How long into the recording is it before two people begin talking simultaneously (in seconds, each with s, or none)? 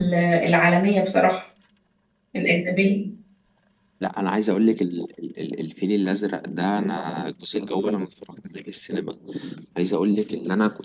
none